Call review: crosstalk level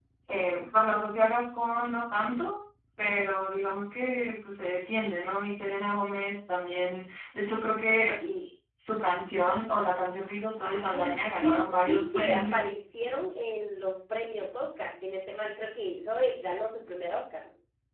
present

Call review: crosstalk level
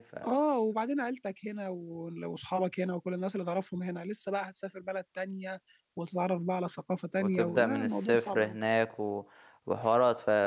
present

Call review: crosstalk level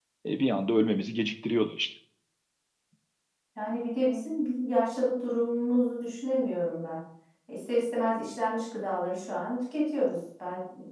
none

